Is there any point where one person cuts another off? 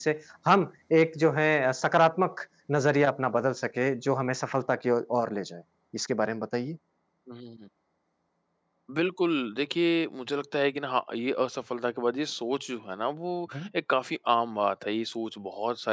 No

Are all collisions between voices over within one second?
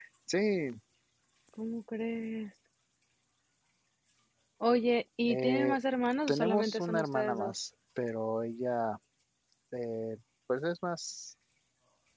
No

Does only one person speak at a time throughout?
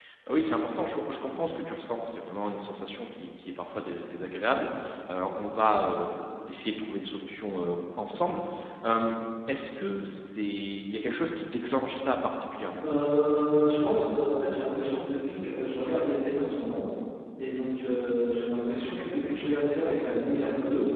Yes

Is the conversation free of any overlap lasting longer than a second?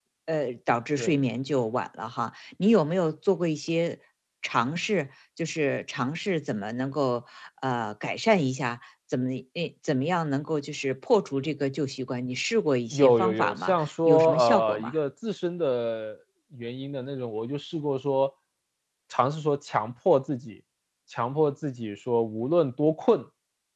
No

